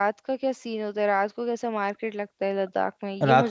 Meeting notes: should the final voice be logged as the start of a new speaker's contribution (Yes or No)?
Yes